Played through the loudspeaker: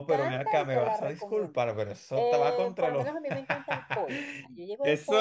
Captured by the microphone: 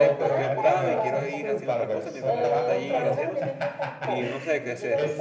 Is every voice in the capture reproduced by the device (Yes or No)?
No